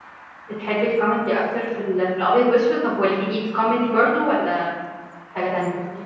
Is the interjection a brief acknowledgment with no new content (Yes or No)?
No